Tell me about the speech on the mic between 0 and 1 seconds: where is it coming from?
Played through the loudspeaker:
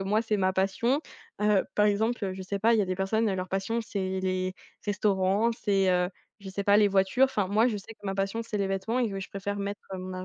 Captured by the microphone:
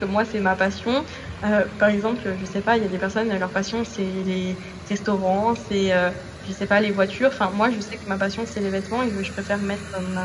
echo only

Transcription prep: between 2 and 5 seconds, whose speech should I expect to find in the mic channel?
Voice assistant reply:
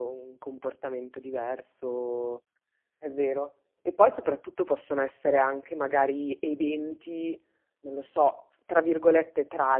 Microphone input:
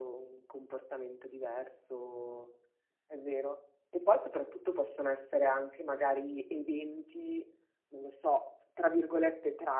echo only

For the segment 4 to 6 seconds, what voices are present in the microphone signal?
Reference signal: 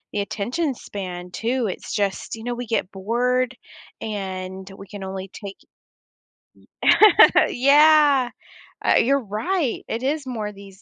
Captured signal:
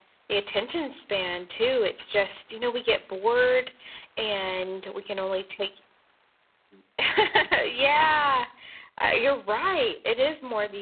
echo only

